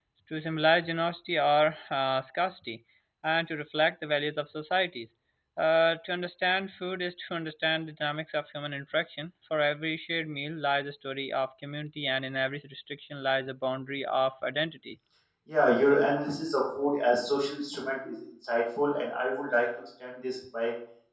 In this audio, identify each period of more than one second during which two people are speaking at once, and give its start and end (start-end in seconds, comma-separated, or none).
none